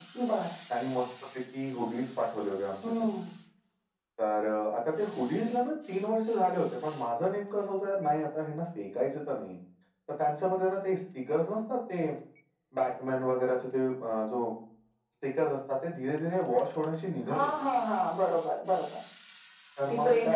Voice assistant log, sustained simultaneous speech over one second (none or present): none